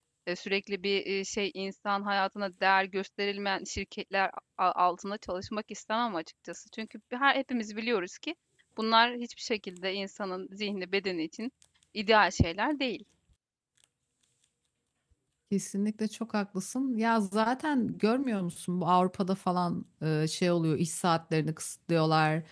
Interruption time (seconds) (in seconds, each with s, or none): none